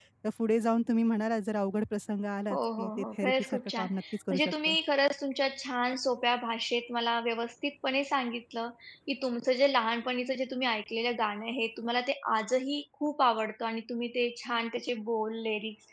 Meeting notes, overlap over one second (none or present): present